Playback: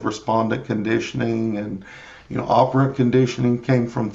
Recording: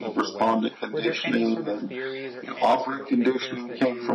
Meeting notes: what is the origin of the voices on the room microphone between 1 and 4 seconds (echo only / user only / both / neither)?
both